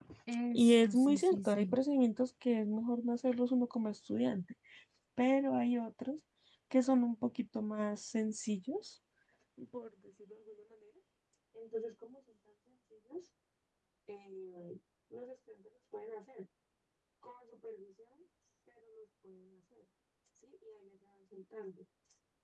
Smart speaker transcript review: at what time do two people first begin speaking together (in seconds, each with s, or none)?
0.6 s